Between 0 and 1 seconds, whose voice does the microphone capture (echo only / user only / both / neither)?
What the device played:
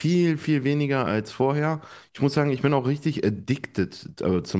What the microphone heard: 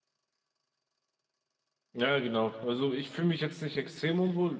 neither